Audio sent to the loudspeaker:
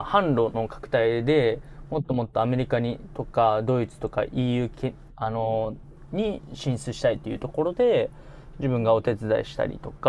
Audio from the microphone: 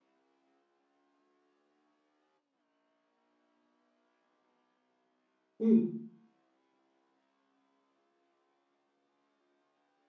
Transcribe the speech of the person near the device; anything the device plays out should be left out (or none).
うん。